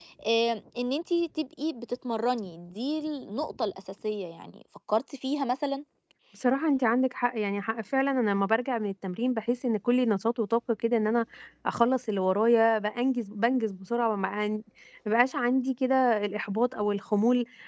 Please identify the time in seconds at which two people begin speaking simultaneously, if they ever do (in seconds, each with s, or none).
none